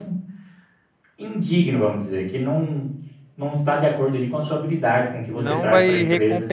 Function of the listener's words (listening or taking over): taking over